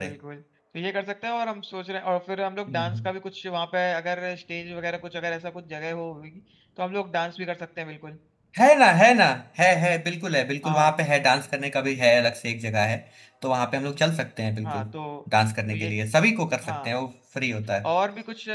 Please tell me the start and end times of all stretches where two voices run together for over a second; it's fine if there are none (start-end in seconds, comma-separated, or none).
none